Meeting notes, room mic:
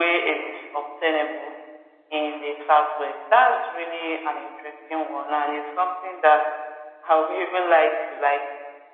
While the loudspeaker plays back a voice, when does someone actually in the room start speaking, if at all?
none

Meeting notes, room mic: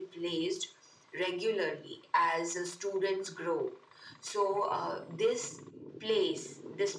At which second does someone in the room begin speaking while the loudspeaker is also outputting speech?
none

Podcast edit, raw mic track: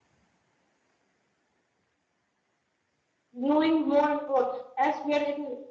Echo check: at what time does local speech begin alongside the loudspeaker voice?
3.3 s

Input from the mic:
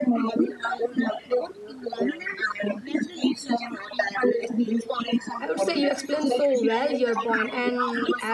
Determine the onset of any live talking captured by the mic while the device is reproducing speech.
5.4 s

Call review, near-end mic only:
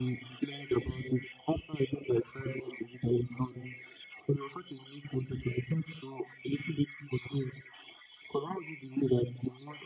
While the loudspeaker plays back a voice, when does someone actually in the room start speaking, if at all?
none

